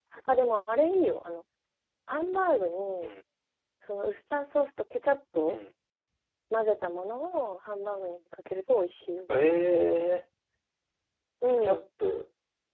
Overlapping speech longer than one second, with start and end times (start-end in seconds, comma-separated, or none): none